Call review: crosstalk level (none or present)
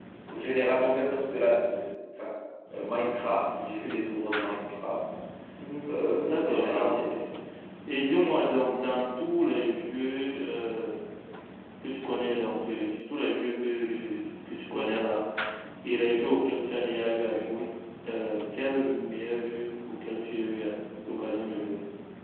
present